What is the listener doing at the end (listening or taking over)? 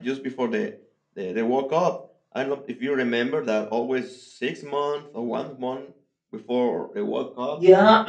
taking over